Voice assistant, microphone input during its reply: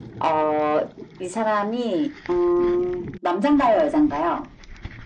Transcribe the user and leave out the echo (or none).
none